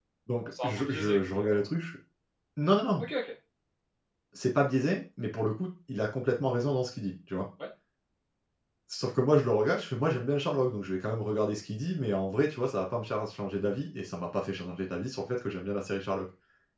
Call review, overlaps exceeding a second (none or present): present